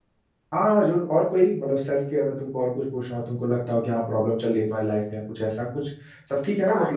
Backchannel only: No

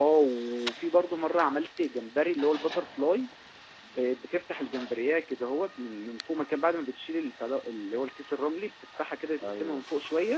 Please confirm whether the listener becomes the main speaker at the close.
No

